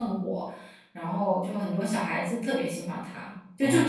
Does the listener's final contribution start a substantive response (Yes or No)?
No